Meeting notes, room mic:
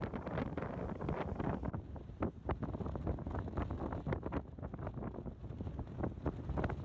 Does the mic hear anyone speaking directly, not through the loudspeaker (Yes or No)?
No